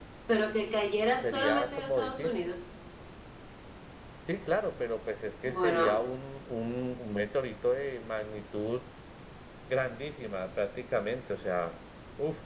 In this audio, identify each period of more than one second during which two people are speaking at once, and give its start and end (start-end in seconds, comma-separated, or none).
1.2-2.5